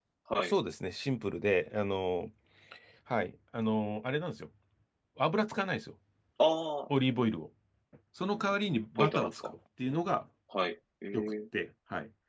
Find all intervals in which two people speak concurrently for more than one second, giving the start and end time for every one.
none

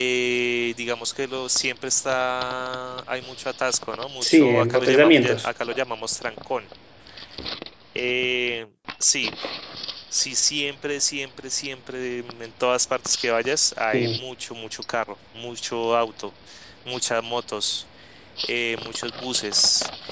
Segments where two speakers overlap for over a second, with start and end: 4.2-5.5

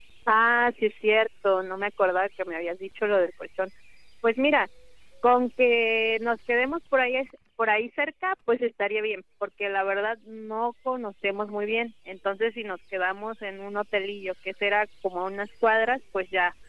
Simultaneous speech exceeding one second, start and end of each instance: none

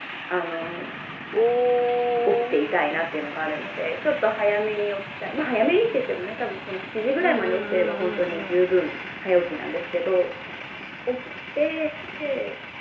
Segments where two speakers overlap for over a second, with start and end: 7.2-8.7

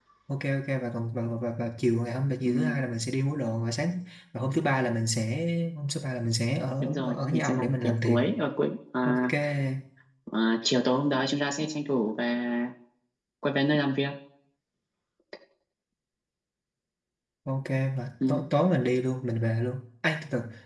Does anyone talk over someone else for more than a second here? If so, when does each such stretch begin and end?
6.8-8.2

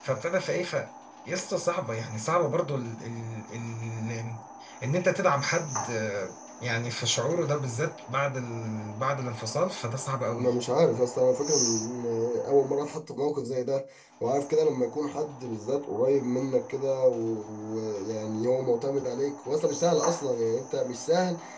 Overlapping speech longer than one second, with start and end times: none

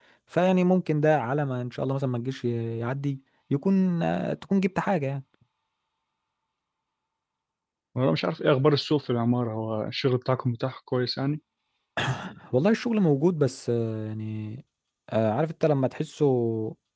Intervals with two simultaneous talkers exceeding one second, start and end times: none

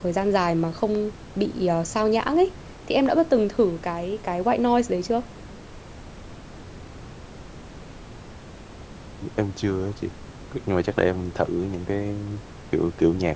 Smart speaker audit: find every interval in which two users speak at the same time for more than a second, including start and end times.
none

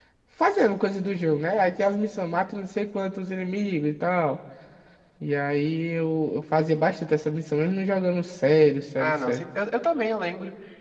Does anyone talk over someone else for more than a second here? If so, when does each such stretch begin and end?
none

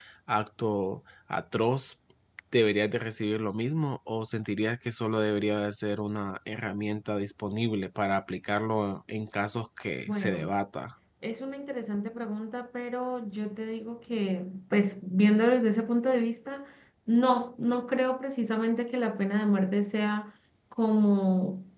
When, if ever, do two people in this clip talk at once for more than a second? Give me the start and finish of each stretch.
none

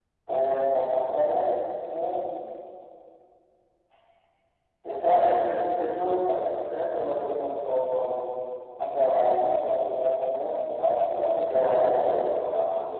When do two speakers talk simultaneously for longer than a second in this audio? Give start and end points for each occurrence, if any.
11.1-12.3

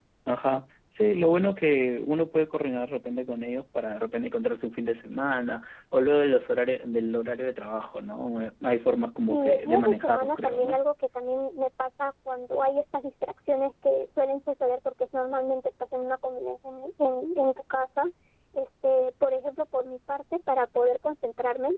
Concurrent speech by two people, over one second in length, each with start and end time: 9.3-10.8

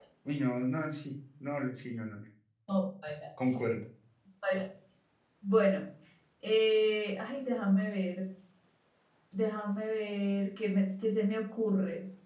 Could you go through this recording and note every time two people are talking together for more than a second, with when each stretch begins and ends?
none

